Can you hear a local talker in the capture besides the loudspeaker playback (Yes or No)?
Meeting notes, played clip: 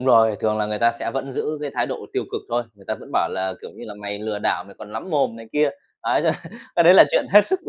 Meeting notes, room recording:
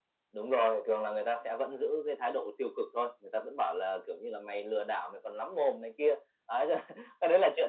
No